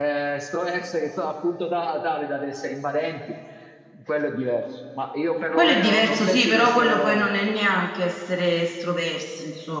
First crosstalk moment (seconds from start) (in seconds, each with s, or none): 5.5 s